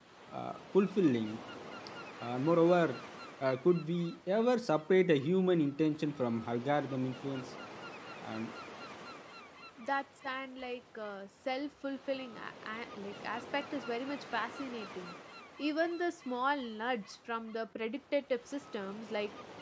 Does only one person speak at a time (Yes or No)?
Yes